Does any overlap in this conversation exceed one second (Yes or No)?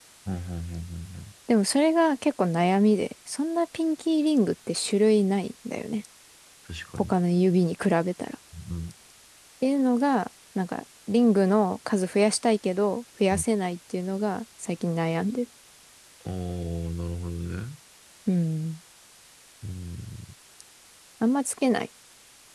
No